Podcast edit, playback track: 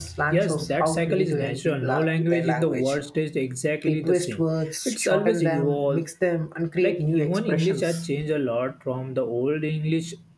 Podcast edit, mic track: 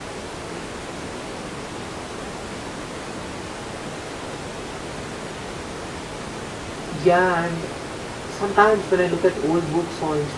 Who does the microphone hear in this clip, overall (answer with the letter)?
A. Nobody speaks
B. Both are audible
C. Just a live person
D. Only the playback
C